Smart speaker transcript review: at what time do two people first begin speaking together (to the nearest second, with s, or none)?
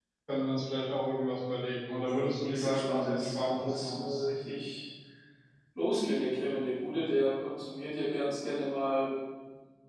2 s